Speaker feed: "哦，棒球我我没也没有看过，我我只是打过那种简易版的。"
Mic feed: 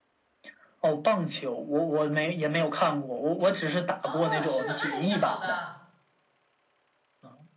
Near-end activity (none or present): present